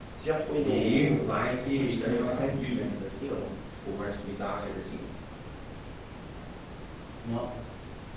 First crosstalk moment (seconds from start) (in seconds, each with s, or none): 0.6 s